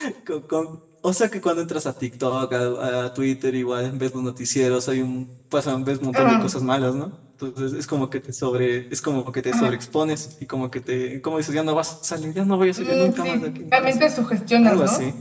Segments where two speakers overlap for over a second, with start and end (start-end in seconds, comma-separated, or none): 12.8-14.0